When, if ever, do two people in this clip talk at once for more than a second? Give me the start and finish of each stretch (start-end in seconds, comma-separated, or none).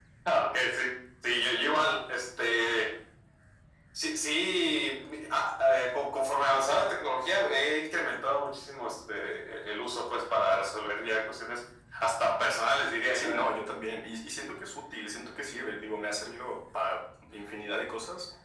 none